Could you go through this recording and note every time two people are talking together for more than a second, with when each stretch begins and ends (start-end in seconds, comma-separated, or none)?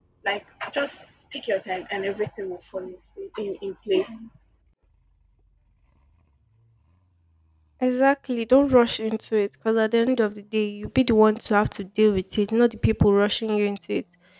none